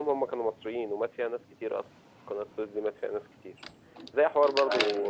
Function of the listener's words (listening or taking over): listening